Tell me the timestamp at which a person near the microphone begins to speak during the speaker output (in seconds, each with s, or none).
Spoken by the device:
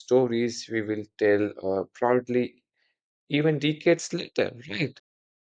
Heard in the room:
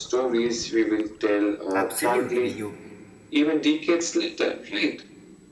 1.8 s